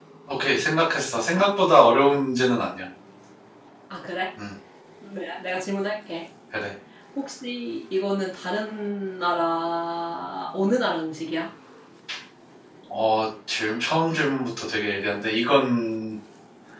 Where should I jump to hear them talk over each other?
none

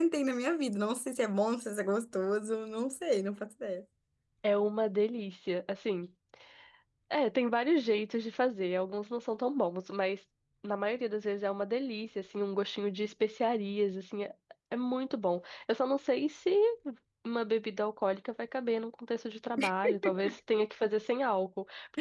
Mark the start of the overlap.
none

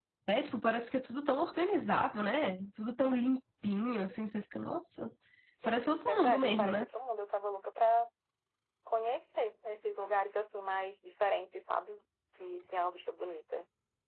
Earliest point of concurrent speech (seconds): 5.6 s

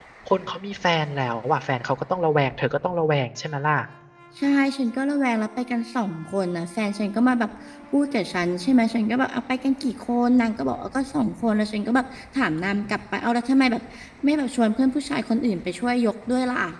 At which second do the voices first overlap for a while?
none

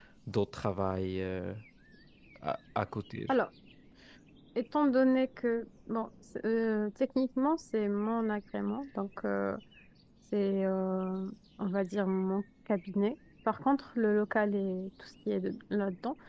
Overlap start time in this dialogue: none

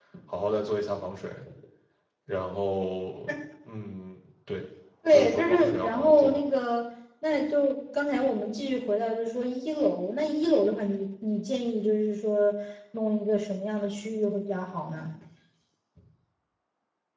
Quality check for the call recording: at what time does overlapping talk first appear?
5.1 s

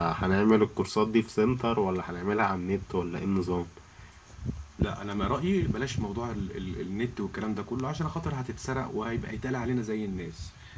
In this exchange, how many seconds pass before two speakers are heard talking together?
none

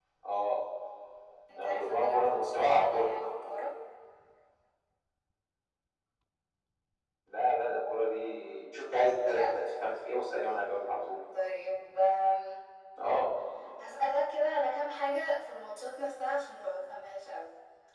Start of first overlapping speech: 1.6 s

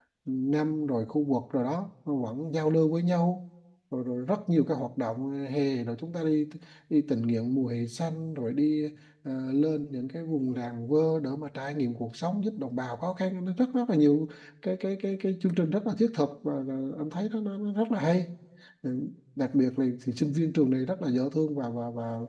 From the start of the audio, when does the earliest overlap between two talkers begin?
none

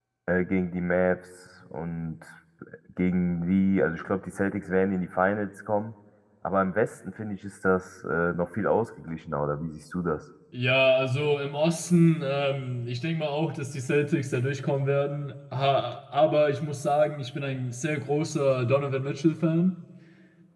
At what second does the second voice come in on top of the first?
none

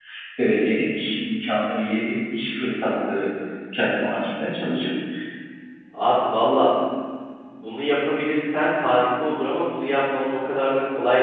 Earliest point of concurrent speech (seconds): none

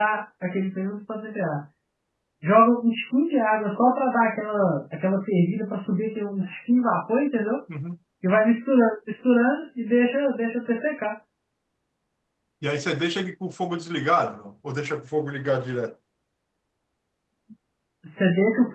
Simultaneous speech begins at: none

